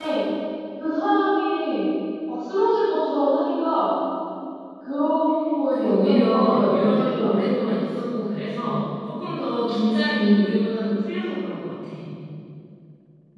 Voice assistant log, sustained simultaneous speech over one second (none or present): present